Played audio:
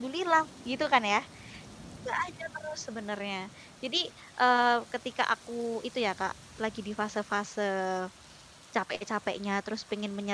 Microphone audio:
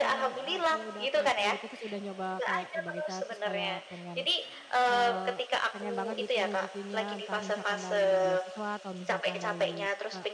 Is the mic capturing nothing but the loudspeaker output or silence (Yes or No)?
No